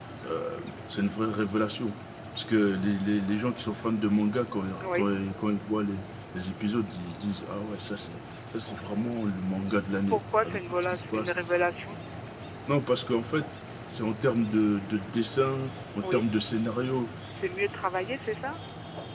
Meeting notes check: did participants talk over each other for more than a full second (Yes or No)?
Yes